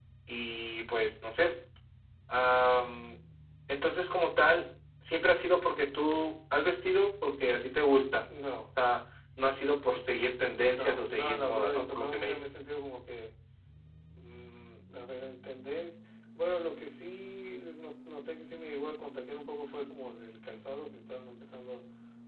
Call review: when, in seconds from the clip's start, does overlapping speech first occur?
10.7 s

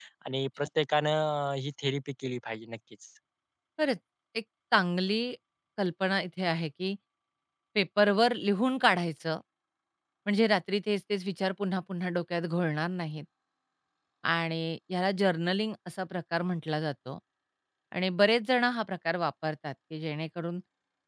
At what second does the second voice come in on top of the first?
none

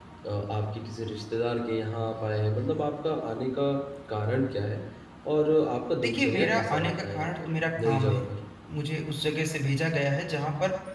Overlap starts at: 6.0 s

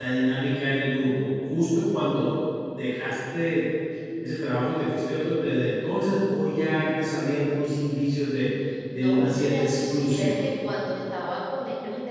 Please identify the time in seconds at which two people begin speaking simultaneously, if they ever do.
8.9 s

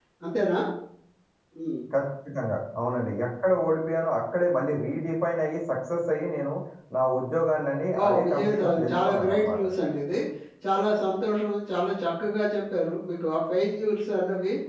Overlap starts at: 7.9 s

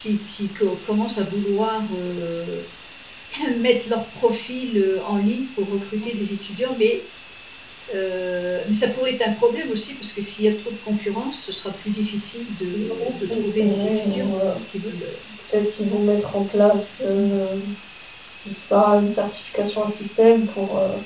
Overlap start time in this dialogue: 12.9 s

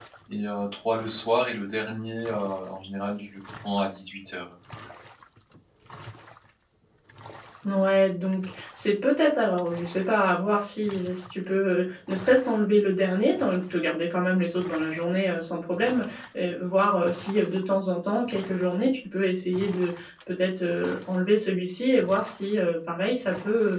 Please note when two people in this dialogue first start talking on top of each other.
none

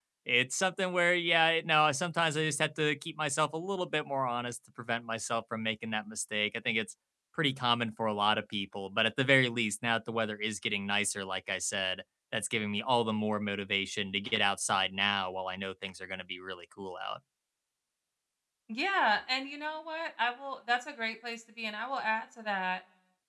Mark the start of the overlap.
none

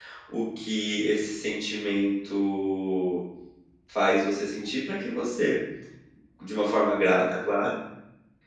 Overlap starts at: none

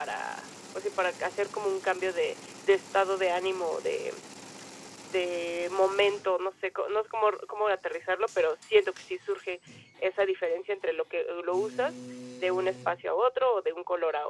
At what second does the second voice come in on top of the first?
none

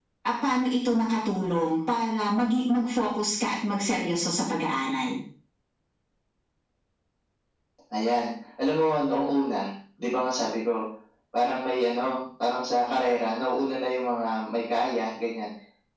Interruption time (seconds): none

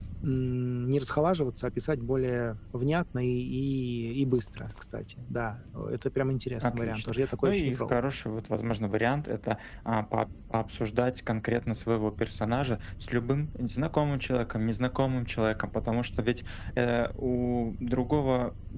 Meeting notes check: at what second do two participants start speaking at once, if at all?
6.6 s

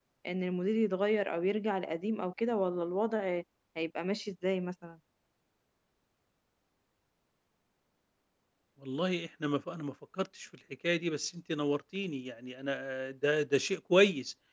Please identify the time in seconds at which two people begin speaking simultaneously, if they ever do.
none

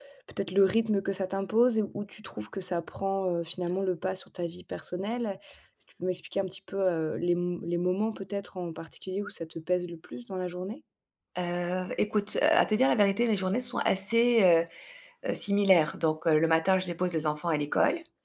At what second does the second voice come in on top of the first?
none

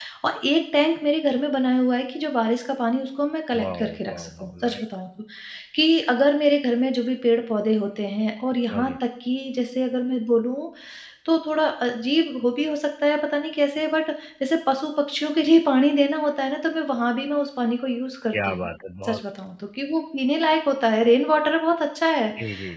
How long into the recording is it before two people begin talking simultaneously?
3.6 s

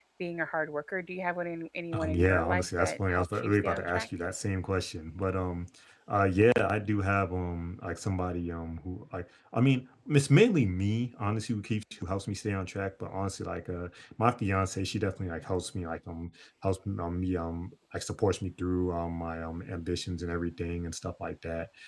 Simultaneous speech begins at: 1.9 s

